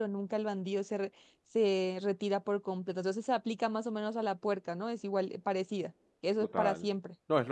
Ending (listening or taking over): taking over